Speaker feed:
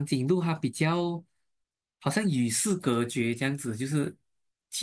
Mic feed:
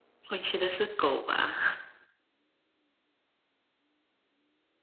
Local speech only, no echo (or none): 我觉得是狗吧，